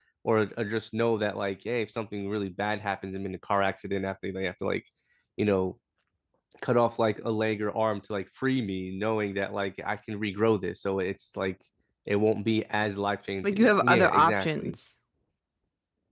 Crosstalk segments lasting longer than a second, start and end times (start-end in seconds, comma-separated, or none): 13.4-14.8